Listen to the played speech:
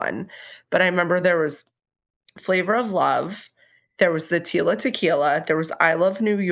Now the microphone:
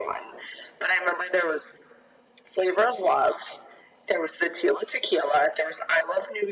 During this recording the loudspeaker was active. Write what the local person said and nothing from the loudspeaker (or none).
none